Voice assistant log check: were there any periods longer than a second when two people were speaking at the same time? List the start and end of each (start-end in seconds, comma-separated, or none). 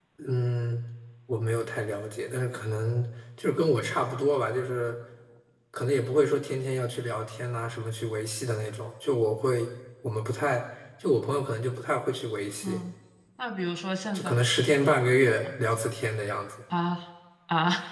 none